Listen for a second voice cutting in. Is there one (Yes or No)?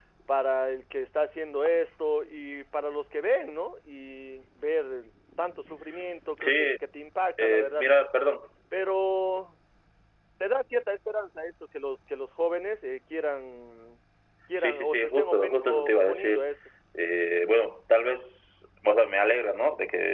Yes